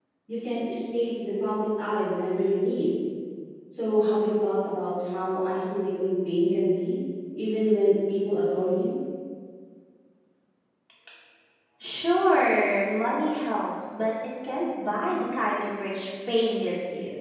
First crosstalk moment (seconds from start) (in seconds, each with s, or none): none